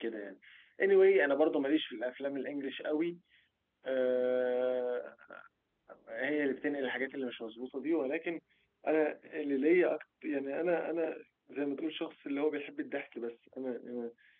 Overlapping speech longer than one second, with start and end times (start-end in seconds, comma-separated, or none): none